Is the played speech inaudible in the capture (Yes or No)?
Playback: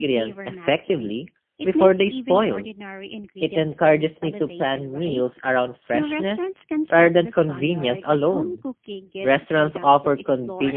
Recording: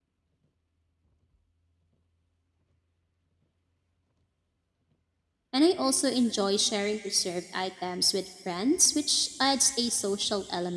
Yes